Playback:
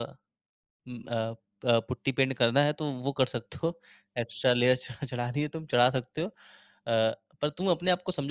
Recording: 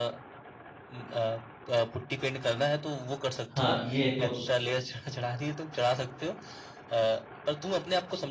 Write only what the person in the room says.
हाँ, ये तो

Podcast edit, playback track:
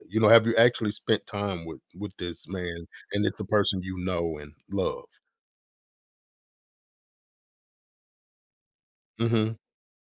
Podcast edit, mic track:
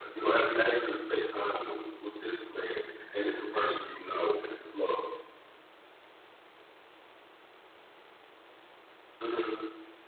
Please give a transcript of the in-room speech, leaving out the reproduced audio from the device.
none

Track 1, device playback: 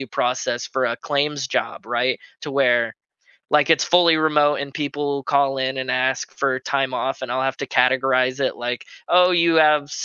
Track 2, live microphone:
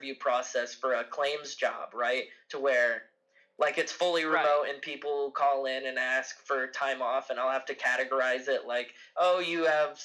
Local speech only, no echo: Right.

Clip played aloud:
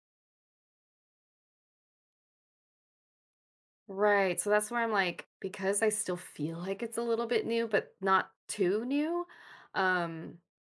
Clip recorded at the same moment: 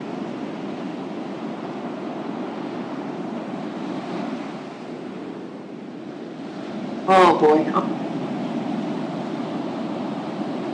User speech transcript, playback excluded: Oh, boy.

